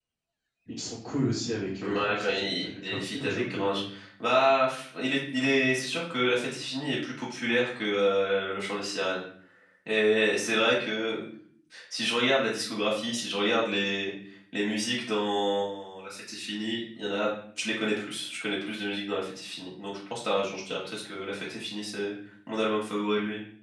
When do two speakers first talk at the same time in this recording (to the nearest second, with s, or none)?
2 s